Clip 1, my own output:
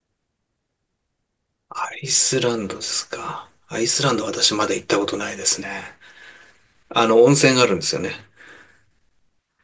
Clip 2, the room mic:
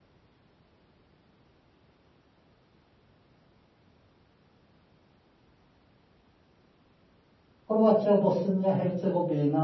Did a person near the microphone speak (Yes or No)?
Yes